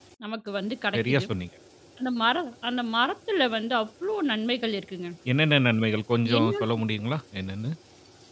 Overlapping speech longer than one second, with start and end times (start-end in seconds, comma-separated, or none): none